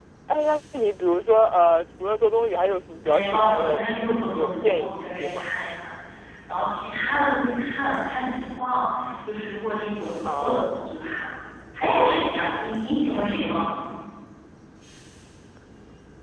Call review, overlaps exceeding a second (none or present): present